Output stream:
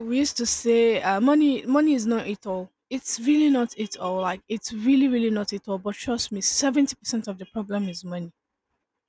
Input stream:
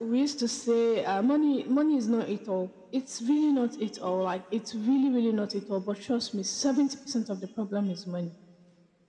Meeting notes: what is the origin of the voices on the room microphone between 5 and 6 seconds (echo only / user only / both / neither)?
echo only